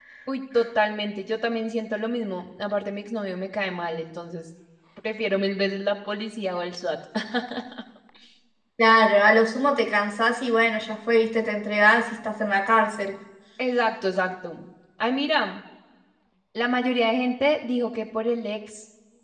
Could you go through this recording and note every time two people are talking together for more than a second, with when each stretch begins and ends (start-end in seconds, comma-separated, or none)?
none